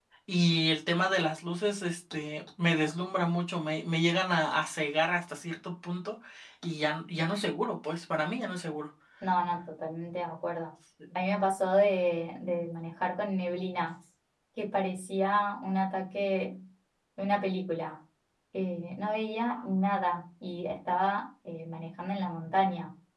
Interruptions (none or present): none